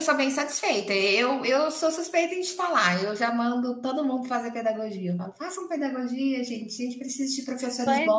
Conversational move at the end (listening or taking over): taking over